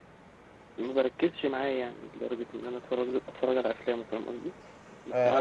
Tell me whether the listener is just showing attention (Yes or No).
No